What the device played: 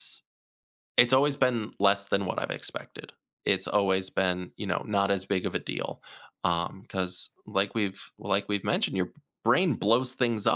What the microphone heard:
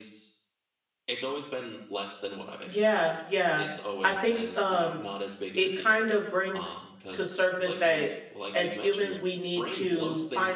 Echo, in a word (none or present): present